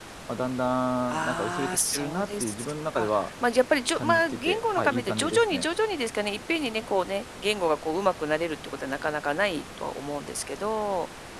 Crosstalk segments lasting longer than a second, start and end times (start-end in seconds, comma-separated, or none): 1.1-2.5, 4.0-5.7